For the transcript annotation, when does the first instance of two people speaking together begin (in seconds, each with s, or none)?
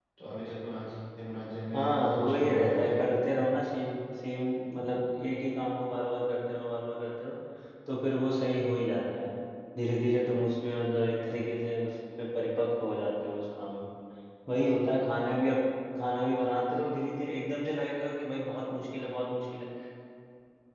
1.7 s